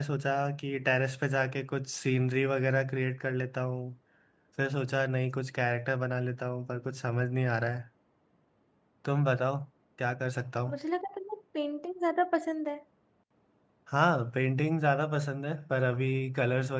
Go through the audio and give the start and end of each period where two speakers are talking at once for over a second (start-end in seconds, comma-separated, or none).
none